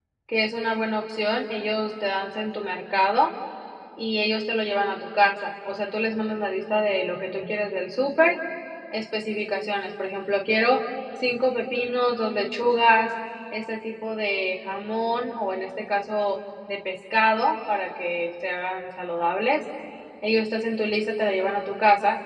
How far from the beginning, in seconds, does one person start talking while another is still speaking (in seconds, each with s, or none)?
none